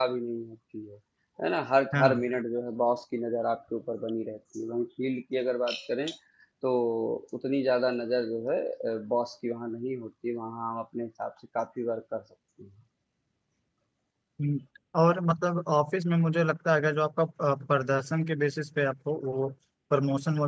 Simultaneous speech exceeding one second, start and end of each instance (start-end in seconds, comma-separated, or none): none